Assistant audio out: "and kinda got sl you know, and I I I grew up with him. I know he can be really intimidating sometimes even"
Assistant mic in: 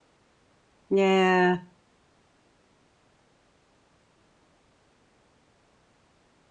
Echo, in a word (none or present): none